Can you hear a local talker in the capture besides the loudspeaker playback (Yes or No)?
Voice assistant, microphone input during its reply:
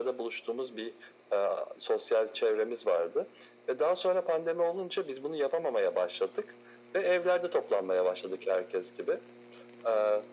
No